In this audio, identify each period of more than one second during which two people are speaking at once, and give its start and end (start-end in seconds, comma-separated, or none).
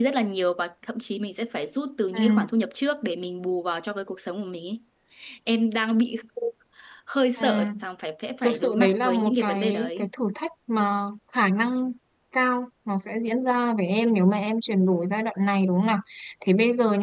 8.4-10.1